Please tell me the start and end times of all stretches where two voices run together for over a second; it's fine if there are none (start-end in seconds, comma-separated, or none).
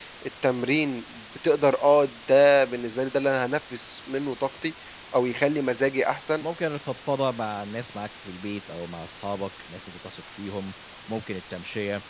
none